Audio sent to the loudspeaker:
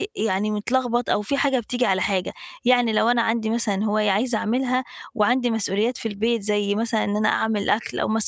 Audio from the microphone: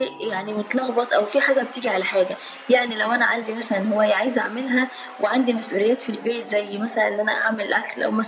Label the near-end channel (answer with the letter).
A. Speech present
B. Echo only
B